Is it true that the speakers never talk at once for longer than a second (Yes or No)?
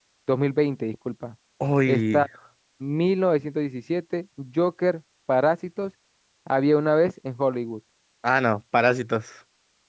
Yes